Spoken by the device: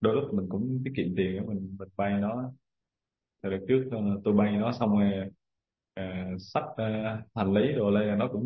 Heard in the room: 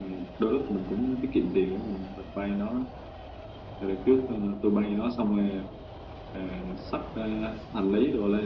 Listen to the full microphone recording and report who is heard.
echo only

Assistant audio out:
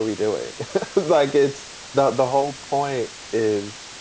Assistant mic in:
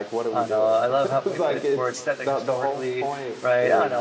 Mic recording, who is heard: both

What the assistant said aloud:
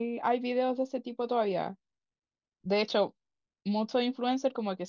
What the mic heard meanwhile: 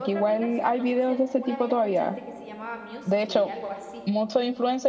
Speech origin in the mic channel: both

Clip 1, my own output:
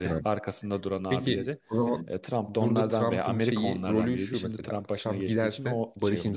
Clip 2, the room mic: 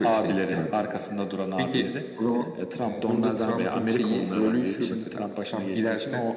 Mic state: both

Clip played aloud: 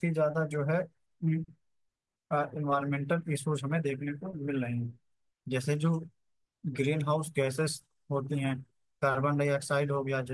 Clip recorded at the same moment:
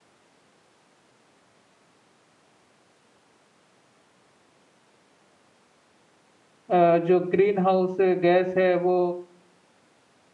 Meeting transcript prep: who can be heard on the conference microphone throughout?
user only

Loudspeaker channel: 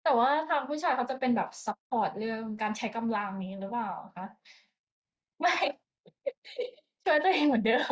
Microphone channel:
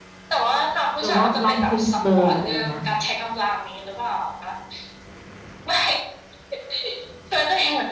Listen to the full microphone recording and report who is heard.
both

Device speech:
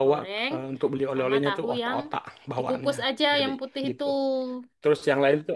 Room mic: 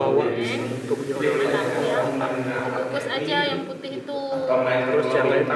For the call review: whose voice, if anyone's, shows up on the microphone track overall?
both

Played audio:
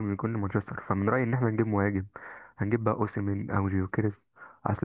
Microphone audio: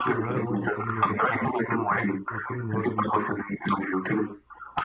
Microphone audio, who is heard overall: both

